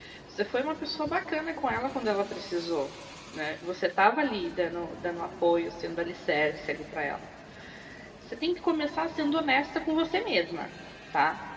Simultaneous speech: No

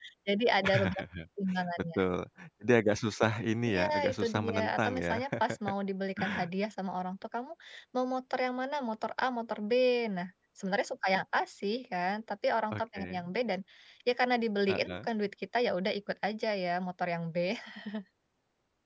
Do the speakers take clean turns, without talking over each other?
No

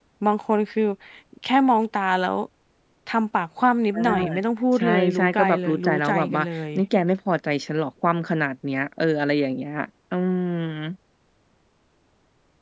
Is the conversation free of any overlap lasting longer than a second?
No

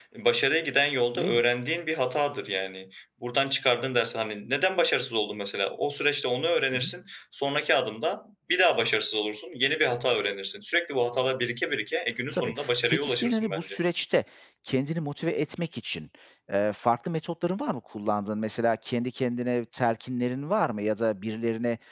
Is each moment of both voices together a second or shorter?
No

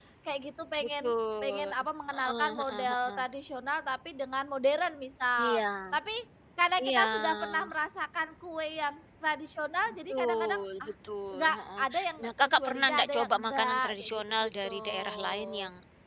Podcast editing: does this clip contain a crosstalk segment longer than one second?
Yes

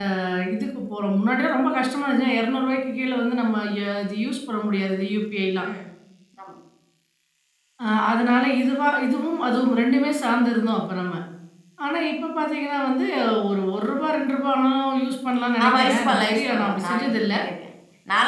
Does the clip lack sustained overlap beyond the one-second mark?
No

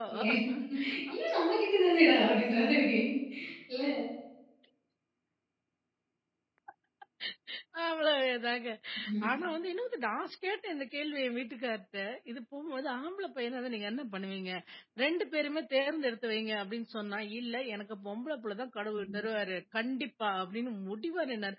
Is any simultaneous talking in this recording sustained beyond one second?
No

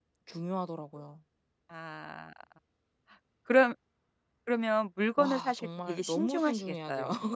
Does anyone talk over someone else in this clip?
Yes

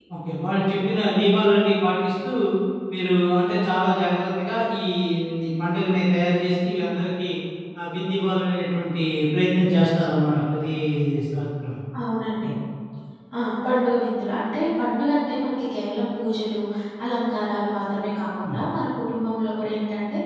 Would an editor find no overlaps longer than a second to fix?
Yes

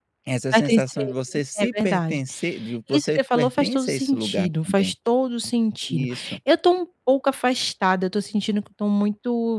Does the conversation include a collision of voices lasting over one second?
Yes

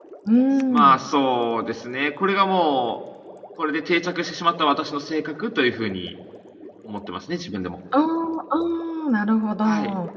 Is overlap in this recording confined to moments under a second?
Yes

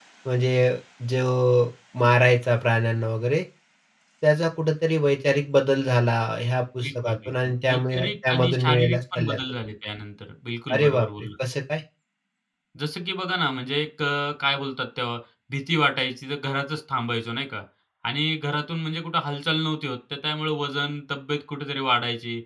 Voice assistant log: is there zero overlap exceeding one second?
No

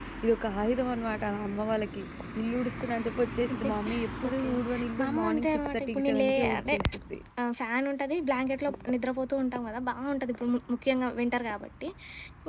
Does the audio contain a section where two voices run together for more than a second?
Yes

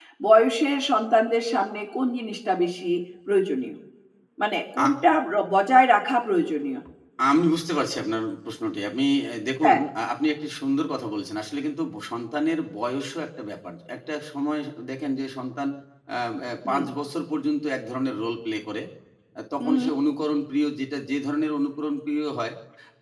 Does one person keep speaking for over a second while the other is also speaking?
No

